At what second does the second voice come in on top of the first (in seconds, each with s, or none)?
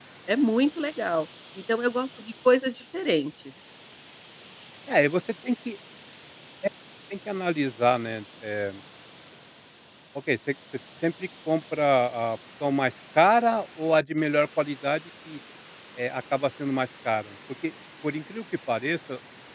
none